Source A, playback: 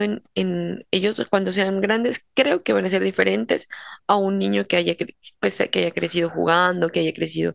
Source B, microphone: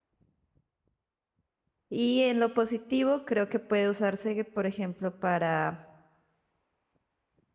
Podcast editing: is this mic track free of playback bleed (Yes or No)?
Yes